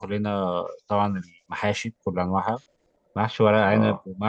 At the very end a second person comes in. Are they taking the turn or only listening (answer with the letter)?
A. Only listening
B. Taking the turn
A